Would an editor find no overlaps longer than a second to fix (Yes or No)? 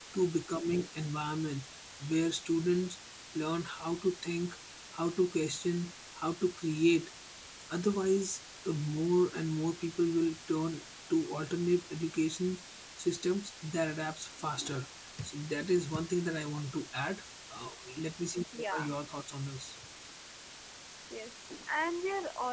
Yes